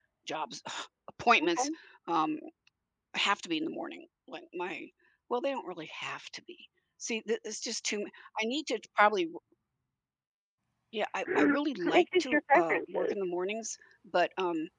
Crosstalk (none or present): present